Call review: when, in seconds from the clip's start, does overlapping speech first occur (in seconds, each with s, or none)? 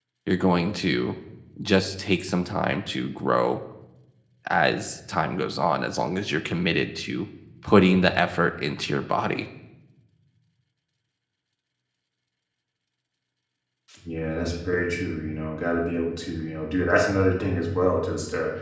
none